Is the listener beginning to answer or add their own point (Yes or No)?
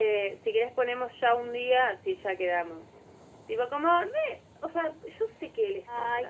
Yes